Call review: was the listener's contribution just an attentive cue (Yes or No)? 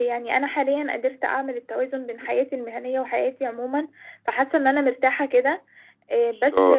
No